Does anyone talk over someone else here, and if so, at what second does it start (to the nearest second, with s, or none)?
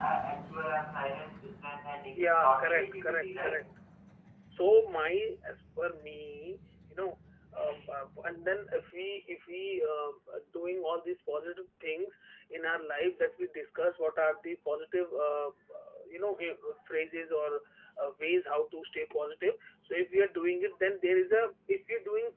2 s